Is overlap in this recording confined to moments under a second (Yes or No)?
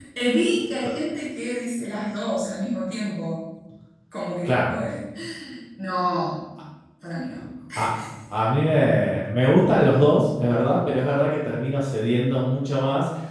Yes